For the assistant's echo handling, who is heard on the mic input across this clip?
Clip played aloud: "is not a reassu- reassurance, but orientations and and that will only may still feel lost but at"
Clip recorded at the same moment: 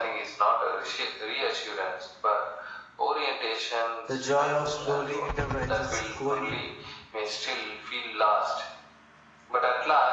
both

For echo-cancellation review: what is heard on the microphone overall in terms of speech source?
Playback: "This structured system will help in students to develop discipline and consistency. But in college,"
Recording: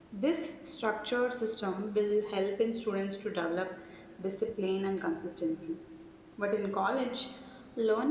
echo only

